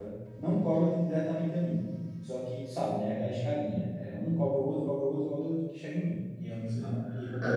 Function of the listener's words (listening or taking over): taking over